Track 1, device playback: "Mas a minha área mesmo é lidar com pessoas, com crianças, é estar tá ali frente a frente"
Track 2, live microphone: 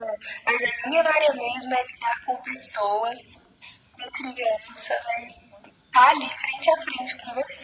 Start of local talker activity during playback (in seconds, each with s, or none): none